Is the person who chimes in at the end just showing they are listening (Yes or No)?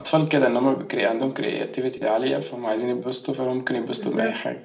No